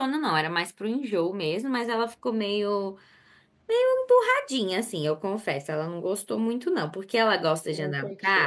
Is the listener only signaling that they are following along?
Yes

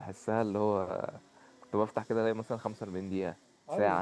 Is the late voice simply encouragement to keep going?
No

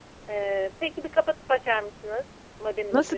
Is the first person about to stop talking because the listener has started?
Yes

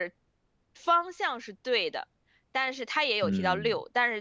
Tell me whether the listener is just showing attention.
Yes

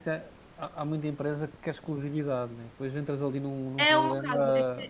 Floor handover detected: Yes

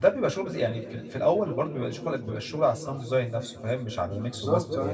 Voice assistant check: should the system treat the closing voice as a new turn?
Yes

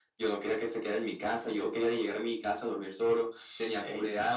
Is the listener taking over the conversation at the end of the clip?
Yes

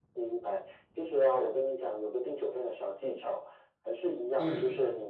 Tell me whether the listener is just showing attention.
Yes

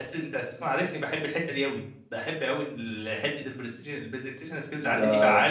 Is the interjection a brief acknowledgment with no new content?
No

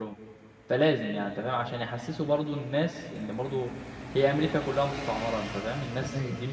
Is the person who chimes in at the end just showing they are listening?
Yes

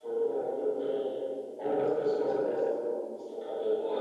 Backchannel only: No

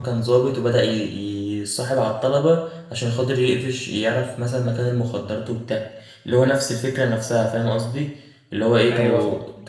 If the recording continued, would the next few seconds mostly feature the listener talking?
No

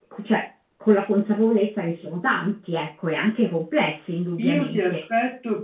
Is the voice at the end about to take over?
Yes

